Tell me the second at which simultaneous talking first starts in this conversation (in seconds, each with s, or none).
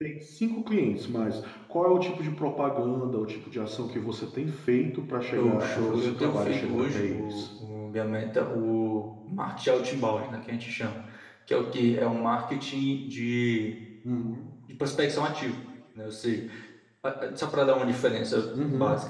5.3 s